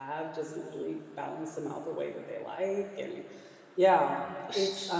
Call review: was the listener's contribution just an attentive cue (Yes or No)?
Yes